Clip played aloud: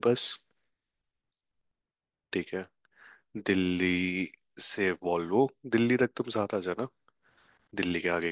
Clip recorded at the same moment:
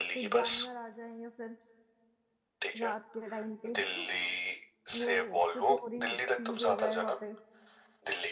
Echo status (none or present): present